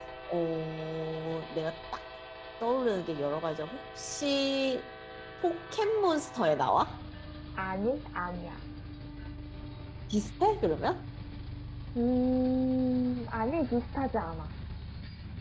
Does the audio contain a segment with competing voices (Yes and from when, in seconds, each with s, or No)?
No